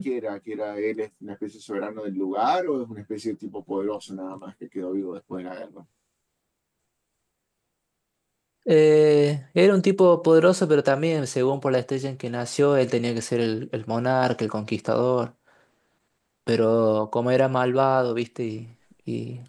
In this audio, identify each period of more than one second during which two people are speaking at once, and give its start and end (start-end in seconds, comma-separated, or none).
none